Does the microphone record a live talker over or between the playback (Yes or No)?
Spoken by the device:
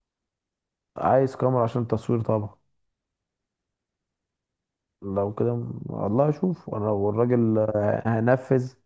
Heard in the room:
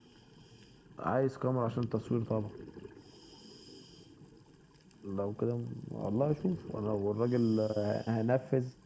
No